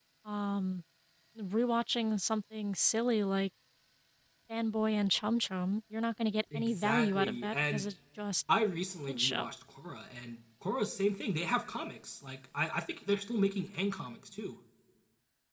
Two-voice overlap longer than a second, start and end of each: 6.5-7.9

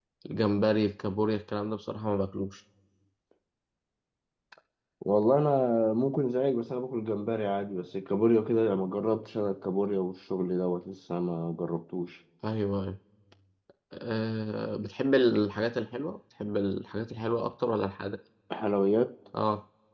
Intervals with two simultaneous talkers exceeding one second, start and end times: none

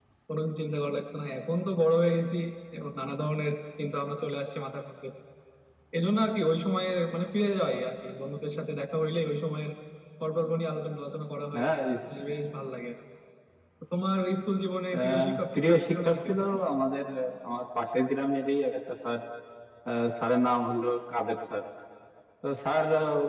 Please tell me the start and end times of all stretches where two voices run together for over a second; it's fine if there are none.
14.9-16.3

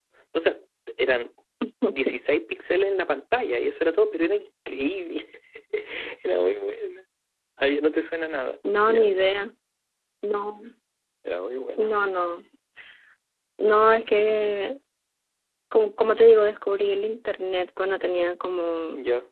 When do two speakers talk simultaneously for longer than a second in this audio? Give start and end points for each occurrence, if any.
none

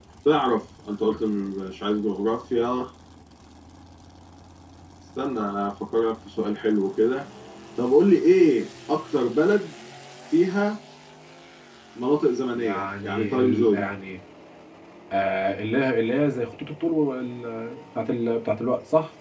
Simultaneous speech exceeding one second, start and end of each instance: 12.6-13.9

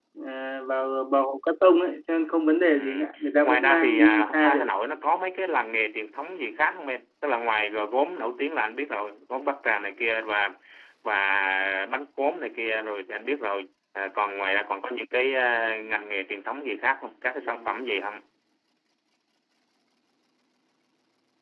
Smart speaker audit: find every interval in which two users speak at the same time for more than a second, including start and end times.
3.4-4.7

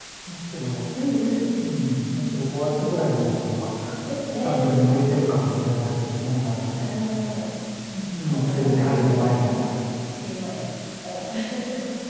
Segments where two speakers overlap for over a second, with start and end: 8.3-9.5

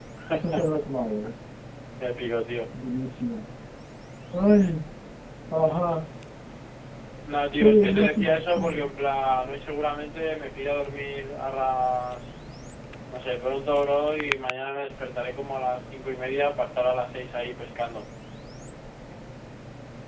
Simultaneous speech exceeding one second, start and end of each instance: 7.6-8.9

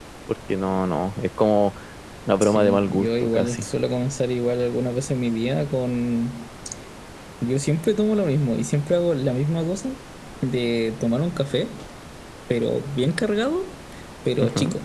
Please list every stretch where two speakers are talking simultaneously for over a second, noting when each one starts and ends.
2.4-3.6

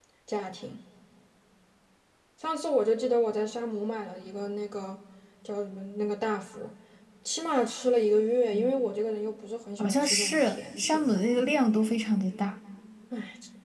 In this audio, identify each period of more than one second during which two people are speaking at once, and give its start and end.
9.8-11.2

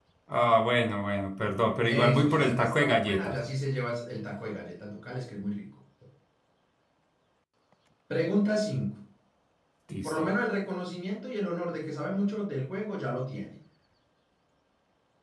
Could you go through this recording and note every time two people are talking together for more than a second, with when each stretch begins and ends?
1.9-3.4

